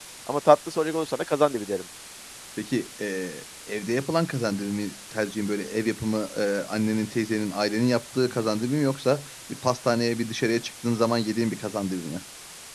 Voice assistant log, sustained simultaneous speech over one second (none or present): none